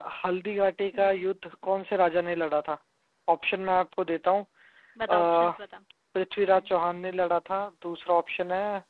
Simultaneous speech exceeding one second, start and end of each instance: none

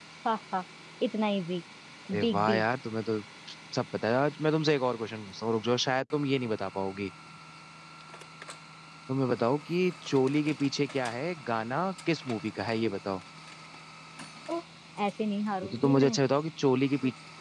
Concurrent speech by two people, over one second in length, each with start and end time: none

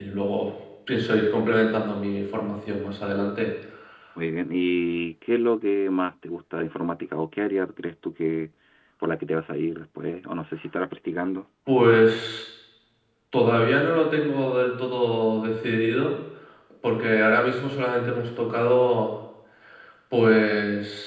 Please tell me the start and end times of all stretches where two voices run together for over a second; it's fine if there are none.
none

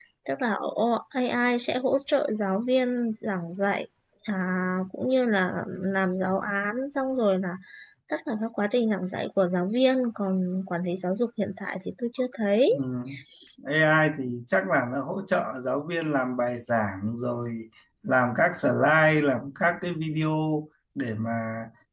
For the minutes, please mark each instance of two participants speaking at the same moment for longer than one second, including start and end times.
none

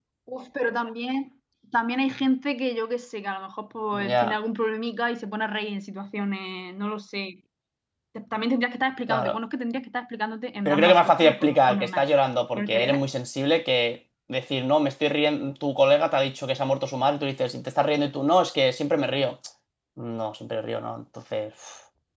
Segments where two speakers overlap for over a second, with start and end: 10.7-12.0

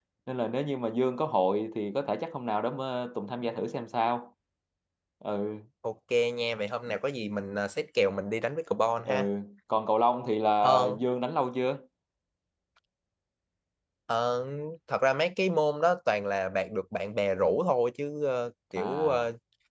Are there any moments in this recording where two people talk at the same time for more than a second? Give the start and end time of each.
none

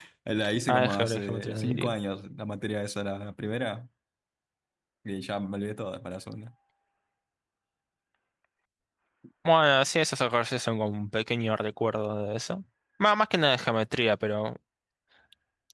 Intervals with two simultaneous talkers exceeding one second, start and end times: 0.7-1.9

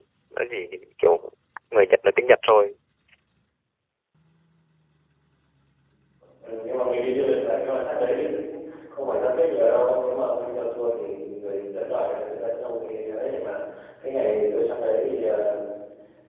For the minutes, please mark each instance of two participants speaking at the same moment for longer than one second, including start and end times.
none

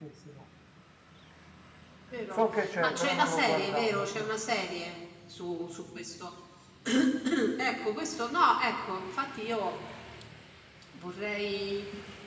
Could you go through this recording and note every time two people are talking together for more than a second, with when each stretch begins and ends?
2.3-4.2

